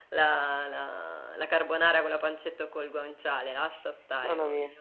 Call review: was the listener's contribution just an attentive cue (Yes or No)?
No